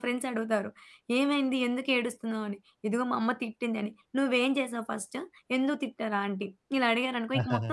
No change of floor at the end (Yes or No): No